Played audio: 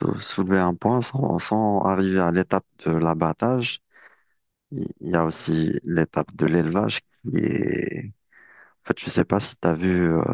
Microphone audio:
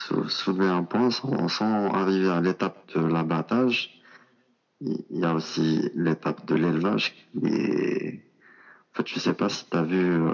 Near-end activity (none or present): none